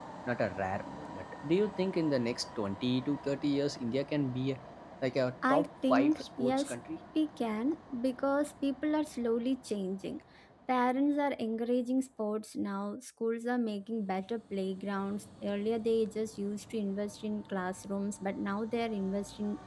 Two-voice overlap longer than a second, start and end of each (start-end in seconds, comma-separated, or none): 5.5-6.7